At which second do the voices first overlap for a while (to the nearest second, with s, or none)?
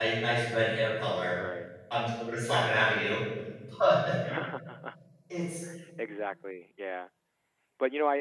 none